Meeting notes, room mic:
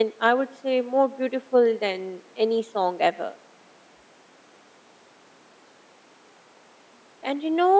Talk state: user only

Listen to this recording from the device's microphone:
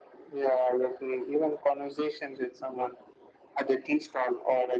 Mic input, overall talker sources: echo only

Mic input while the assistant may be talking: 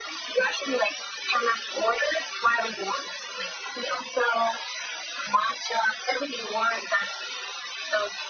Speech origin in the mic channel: echo only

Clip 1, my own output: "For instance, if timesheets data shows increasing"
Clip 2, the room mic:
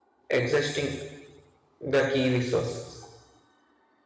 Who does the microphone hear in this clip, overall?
user only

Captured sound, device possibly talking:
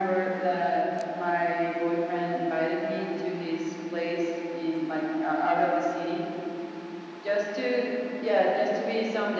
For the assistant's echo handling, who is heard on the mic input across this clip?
echo only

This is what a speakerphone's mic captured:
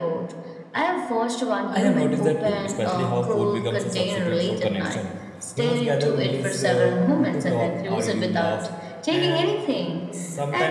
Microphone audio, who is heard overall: both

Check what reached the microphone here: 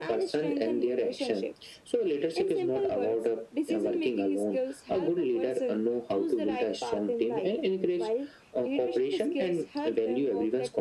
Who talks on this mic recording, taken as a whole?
echo only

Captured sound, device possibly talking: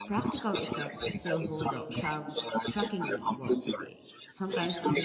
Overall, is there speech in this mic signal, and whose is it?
both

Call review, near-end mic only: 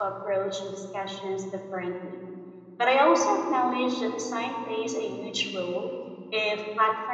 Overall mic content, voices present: user only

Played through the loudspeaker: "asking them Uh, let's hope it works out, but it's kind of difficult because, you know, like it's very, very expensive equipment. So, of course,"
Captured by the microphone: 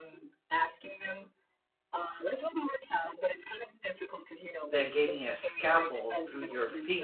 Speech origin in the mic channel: both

